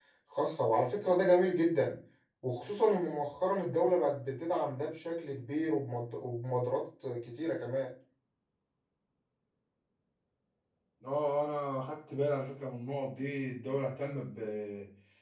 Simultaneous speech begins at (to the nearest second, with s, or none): none